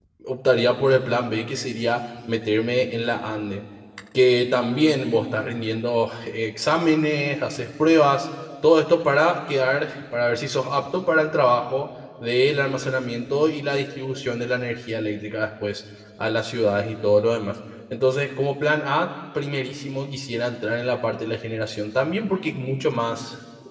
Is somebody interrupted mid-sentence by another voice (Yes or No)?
No